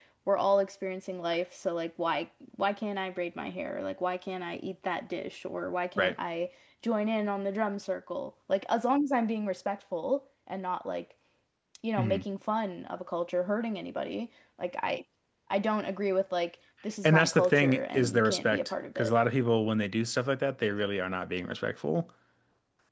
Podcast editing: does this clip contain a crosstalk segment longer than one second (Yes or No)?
Yes